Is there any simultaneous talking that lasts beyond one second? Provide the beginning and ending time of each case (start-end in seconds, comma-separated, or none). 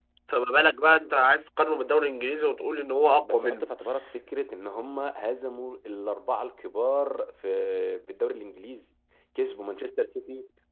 none